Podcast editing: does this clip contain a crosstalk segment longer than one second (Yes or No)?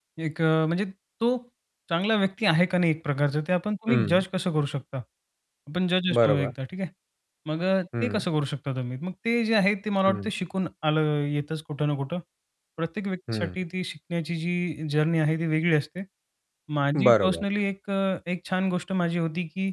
No